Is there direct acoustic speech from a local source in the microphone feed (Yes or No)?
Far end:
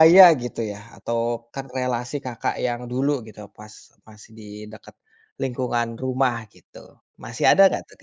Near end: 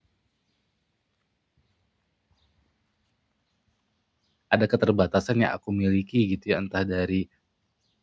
Yes